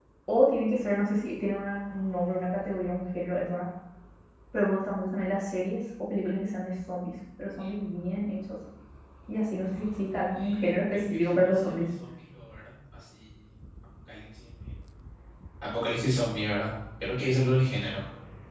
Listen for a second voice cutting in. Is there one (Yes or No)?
Yes